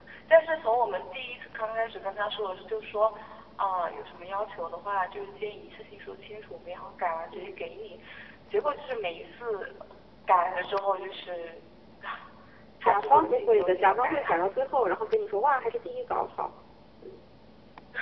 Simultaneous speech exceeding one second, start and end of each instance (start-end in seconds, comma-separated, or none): 12.8-14.2